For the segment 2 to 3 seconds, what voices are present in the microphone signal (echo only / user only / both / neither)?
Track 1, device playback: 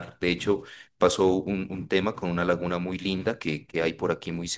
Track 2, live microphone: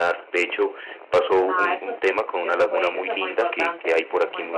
both